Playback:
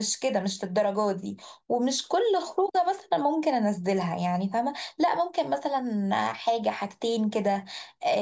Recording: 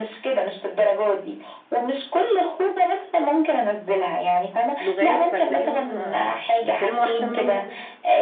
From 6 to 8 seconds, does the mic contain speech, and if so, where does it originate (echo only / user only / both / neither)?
both